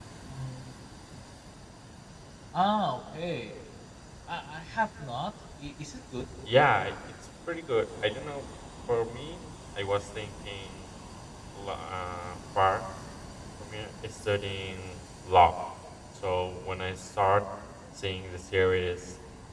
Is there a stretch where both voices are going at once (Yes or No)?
No